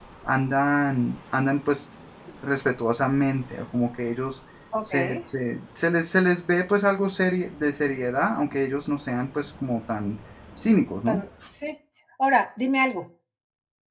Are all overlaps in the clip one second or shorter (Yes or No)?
Yes